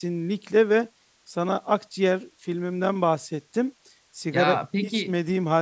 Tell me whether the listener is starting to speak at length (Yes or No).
No